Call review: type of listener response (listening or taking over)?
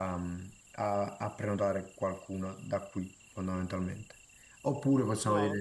listening